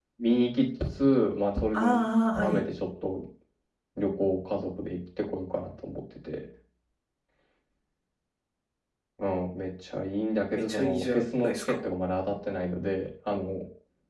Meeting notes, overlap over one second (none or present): present